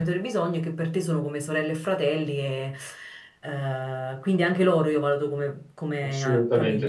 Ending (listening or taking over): taking over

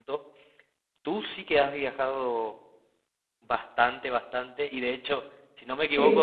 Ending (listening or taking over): listening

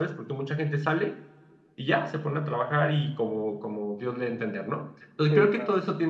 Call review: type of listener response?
listening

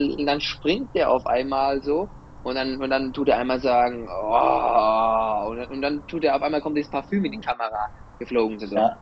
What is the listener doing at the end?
taking over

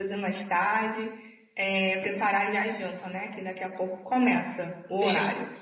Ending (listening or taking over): taking over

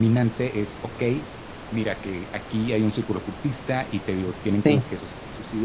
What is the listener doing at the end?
listening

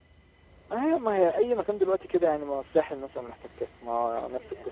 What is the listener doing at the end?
taking over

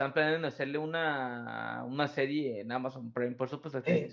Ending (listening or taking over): taking over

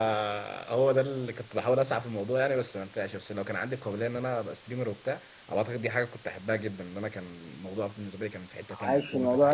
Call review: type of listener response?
taking over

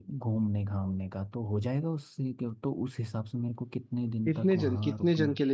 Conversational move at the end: taking over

